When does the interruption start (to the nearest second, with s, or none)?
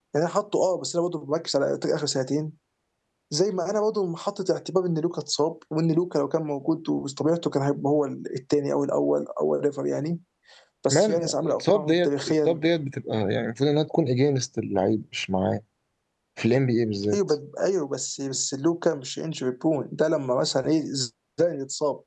11 s